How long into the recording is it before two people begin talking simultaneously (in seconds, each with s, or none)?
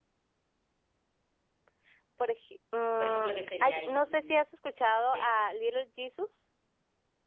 3.0 s